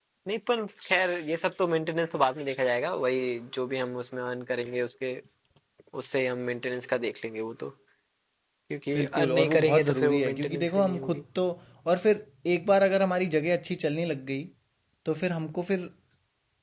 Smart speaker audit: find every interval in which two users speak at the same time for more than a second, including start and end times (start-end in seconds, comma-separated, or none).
8.9-11.2